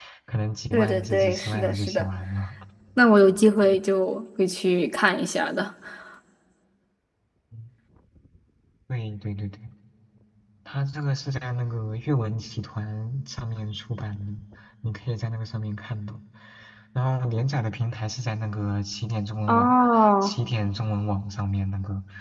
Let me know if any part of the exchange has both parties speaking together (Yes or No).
Yes